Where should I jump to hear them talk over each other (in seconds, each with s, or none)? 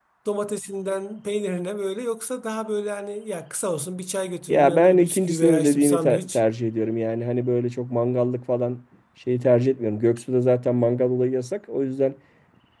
4.5 s